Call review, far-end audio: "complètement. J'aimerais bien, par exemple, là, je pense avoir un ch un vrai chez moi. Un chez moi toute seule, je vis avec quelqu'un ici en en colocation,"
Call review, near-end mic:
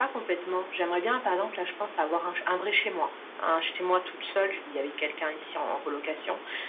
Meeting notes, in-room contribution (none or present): none